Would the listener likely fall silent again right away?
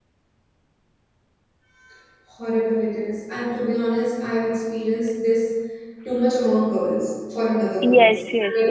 No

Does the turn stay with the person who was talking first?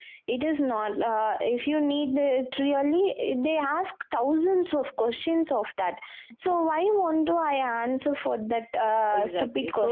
No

